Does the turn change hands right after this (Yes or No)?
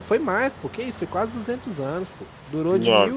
No